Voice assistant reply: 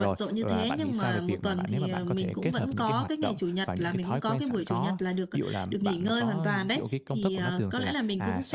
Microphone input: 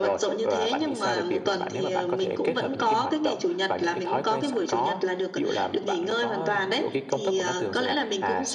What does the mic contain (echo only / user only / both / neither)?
echo only